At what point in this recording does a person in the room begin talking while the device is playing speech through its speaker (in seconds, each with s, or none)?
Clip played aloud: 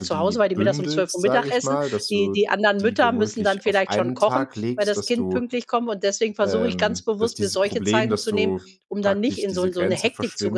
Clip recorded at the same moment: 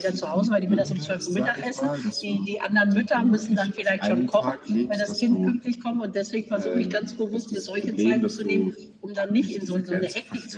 none